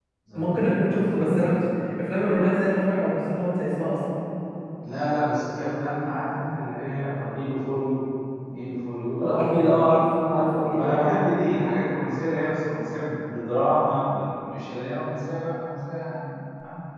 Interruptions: present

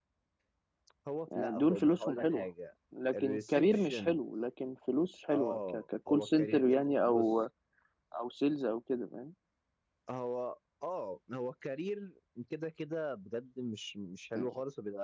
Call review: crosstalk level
present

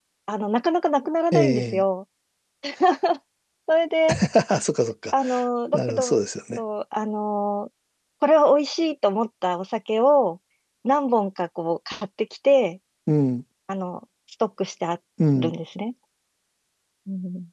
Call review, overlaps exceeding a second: none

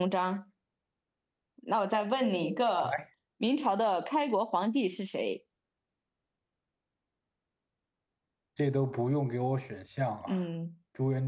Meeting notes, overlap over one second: none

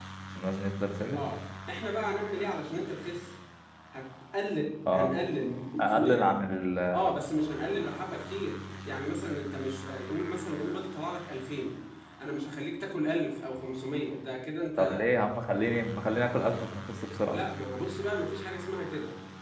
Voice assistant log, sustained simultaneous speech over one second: none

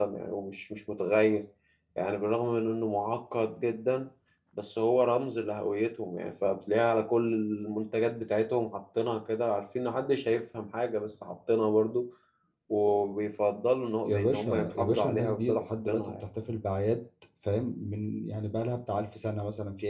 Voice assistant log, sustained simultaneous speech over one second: present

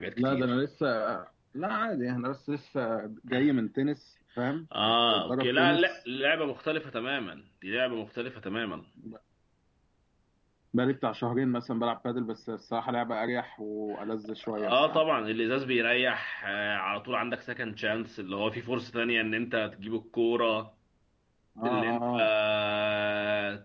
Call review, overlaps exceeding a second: present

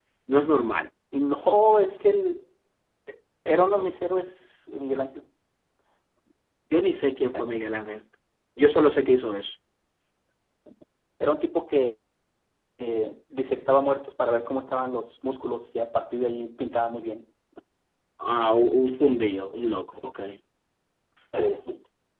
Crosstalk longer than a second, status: none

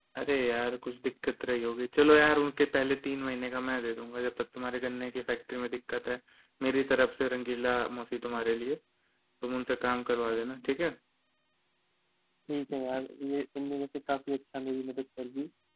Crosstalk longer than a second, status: none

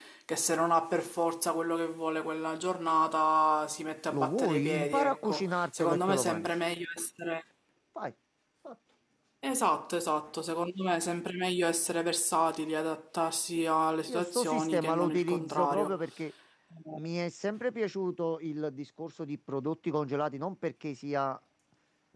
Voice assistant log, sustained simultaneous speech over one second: present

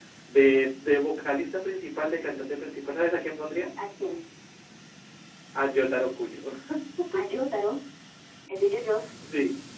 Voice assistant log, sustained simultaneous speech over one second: none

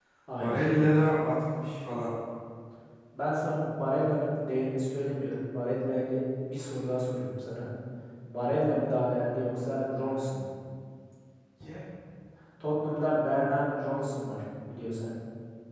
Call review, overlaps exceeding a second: none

